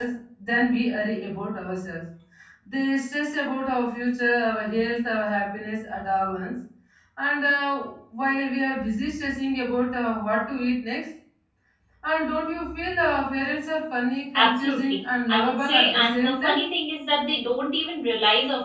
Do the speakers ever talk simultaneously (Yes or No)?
Yes